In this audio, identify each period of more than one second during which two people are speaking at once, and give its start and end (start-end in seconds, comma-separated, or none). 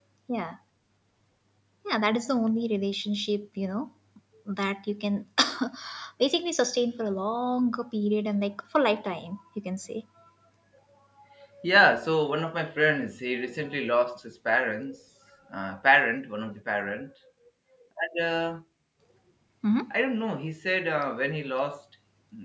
none